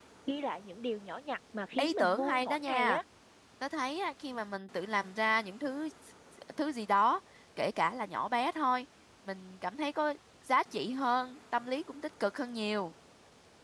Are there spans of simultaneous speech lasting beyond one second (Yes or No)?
Yes